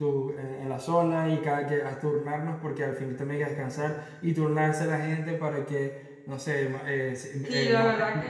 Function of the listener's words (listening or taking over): taking over